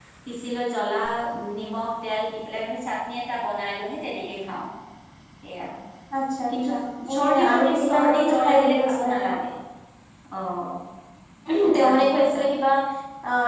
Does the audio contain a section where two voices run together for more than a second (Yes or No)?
Yes